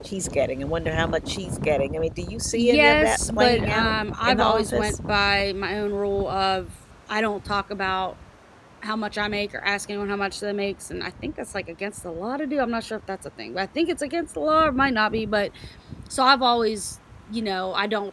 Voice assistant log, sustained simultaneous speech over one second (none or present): present